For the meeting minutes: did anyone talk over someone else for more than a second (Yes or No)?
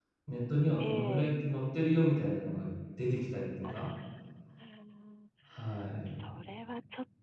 No